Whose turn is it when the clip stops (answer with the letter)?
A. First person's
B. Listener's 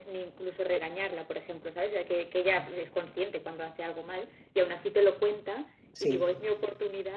A